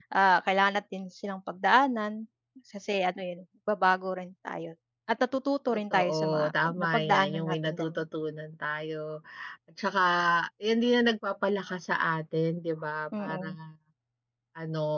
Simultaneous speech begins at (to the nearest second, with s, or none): 6 s